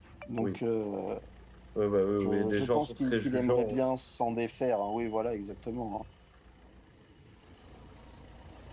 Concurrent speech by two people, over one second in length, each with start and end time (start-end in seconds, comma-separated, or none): 2.2-3.8